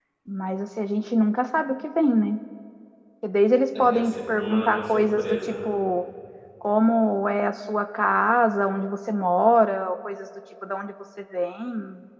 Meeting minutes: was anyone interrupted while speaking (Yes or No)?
Yes